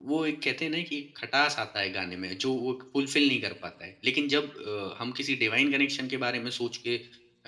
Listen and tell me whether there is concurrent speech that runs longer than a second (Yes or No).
No